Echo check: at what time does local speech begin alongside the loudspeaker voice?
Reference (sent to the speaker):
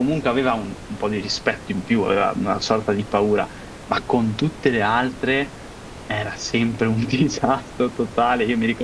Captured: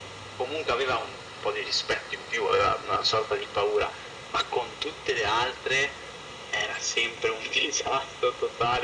none

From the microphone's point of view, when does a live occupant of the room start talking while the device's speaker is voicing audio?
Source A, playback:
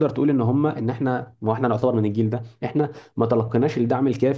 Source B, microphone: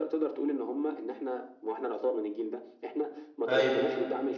3.5 s

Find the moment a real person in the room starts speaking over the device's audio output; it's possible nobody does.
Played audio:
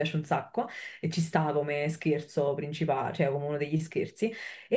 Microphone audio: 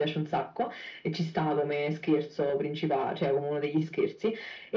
none

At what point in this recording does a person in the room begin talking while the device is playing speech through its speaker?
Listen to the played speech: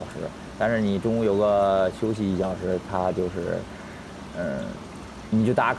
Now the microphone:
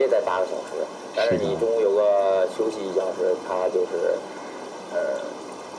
1.1 s

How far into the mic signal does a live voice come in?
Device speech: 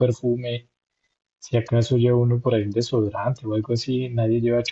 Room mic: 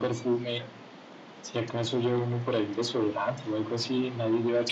none

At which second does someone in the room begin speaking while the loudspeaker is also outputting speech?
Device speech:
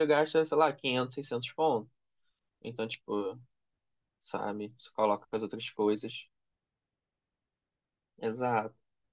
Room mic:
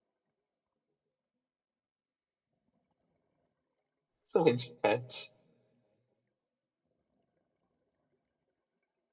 4.2 s

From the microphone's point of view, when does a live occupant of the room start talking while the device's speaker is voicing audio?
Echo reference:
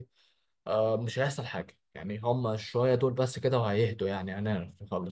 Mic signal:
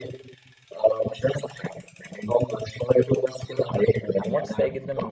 4.0 s

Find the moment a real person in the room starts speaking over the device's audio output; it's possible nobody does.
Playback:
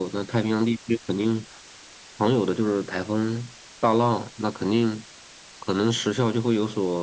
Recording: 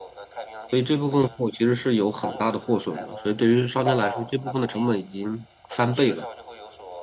0.7 s

